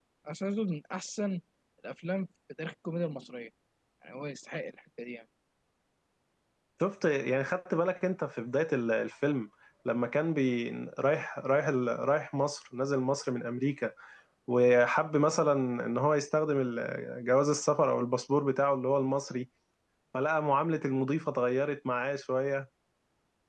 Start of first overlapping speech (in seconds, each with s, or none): none